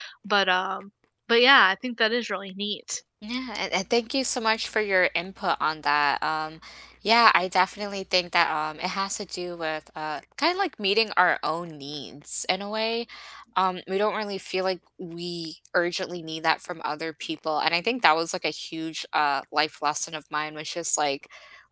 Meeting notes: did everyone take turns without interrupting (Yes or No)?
Yes